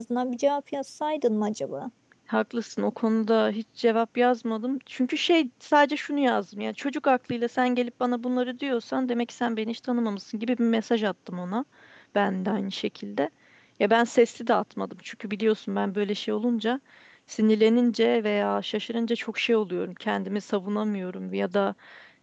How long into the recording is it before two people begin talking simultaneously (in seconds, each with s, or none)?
none